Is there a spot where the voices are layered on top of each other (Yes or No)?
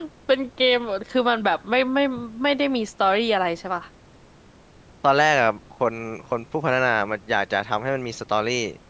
No